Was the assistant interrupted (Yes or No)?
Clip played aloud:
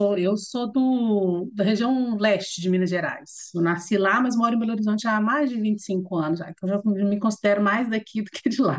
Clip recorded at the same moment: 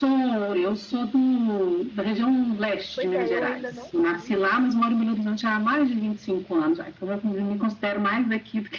Yes